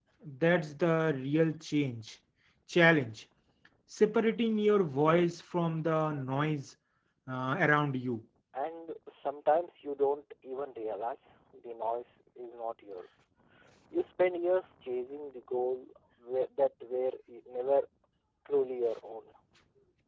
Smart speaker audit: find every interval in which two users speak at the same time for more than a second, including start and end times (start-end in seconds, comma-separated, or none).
none